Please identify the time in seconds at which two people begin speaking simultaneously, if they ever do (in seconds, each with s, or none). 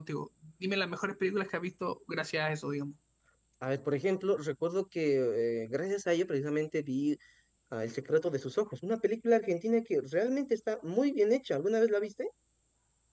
none